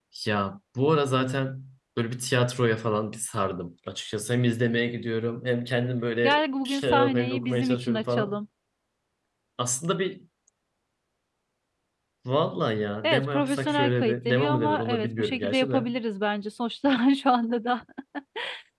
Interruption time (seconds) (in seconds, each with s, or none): 6.2 s